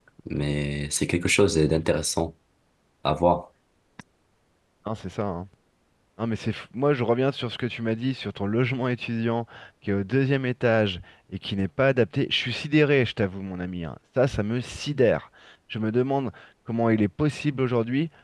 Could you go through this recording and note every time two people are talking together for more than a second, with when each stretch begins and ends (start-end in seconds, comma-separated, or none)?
none